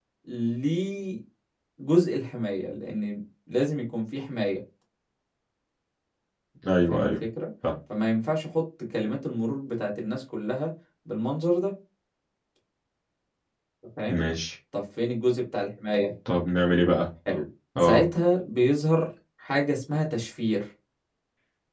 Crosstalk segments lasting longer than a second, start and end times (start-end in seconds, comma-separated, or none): none